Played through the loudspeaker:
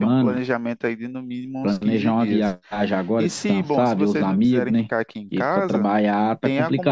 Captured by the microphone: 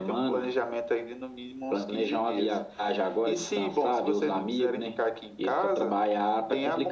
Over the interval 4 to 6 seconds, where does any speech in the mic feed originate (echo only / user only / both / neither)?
echo only